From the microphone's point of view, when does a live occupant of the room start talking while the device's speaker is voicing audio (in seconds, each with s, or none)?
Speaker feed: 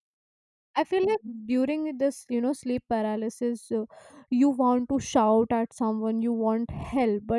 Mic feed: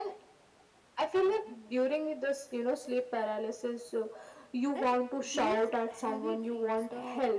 4.8 s